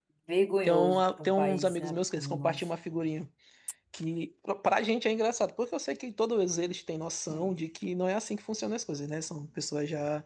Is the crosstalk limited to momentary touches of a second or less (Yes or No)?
No